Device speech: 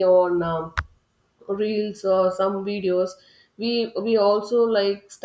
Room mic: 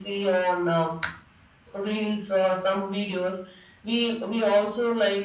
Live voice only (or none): none